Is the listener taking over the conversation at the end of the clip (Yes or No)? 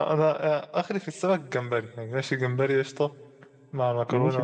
No